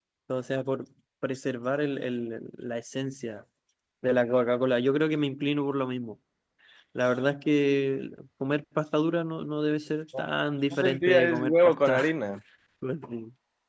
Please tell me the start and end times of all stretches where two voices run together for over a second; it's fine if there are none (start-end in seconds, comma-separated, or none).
10.8-12.1